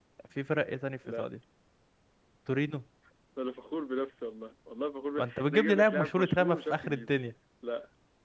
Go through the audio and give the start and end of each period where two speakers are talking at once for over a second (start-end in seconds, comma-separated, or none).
5.2-7.1